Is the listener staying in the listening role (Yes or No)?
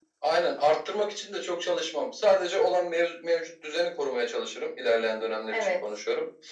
Yes